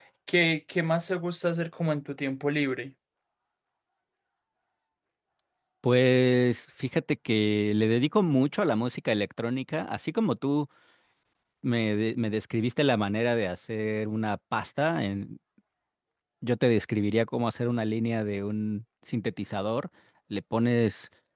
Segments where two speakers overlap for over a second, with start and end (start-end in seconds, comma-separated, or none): none